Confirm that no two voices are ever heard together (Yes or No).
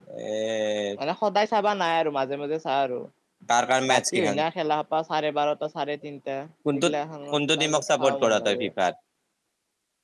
No